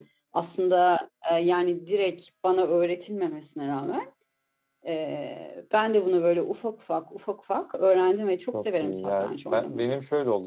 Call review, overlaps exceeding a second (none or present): present